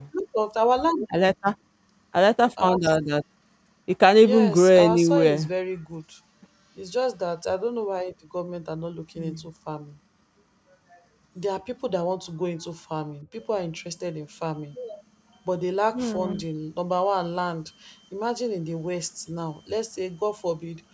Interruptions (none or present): present